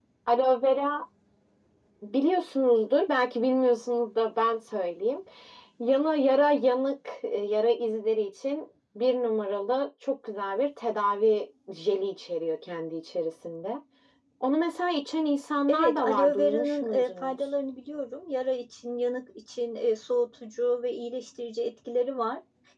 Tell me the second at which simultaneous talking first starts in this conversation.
16 s

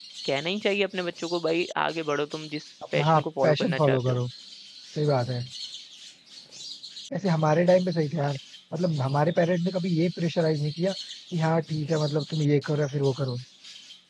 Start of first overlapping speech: 3 s

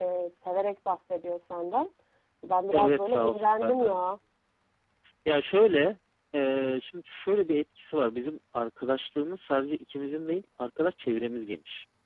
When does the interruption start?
3 s

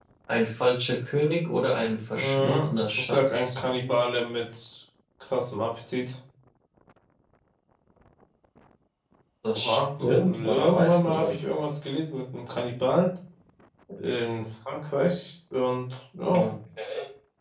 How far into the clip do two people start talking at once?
2 s

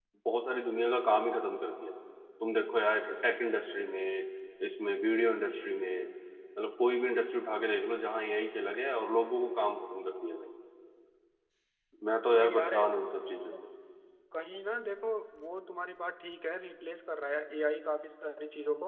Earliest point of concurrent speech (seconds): 12 s

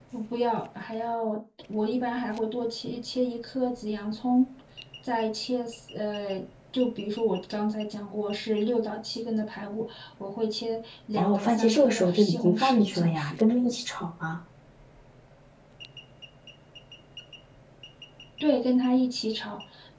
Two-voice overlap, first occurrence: 11 s

